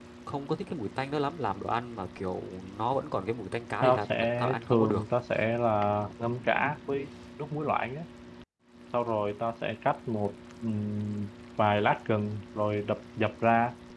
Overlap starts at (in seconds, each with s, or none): 3.8 s